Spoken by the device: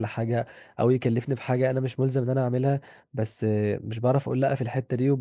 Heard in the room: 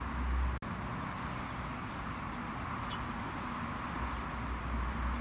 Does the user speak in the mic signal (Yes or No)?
No